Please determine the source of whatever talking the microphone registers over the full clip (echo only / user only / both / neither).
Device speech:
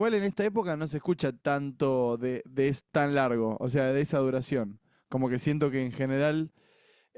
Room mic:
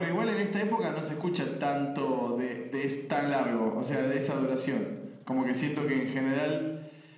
echo only